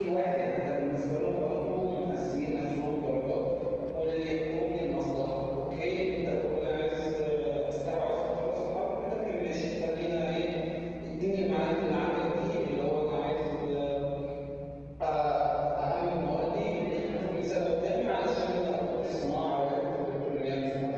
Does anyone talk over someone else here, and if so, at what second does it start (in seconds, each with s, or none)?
16.4 s